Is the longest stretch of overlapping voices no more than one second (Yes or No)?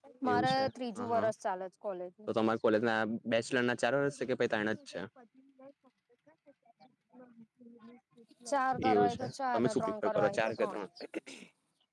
No